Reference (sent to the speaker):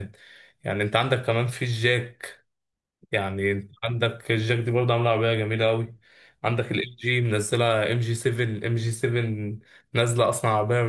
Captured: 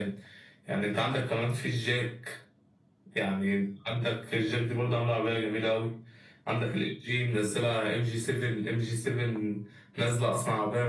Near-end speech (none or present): none